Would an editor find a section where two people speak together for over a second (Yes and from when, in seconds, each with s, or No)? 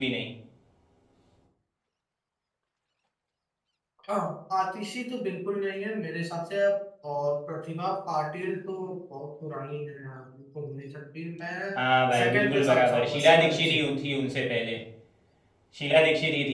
Yes, from 12.2 s